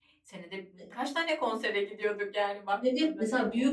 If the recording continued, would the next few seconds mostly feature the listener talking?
Yes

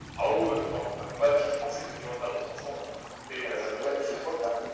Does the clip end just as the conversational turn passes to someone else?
Yes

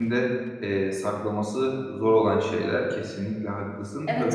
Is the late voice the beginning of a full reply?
Yes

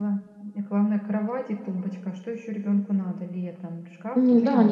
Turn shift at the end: Yes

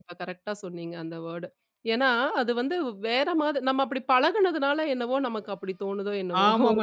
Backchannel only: No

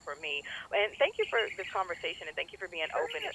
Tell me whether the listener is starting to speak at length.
Yes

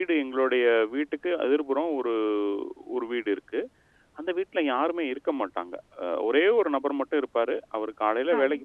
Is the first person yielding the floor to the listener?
No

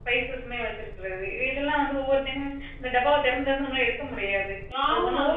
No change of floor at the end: No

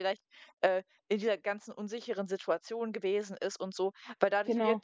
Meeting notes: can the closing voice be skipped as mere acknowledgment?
Yes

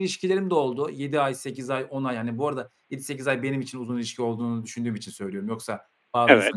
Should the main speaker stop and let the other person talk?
No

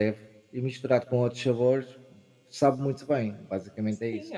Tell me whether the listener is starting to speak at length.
Yes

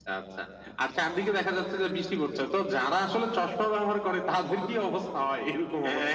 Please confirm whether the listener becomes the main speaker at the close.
Yes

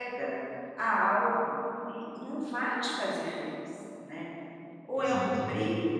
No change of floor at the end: Yes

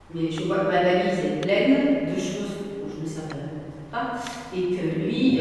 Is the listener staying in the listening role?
Yes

